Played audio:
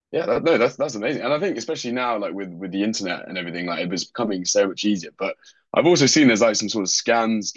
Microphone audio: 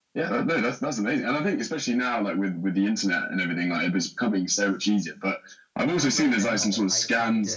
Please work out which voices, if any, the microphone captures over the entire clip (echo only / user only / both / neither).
both